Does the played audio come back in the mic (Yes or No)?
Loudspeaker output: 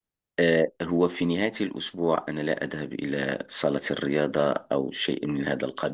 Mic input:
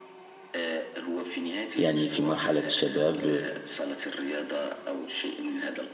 Yes